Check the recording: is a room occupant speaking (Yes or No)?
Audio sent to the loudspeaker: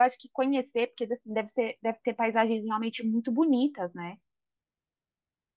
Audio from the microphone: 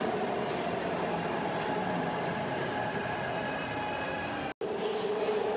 No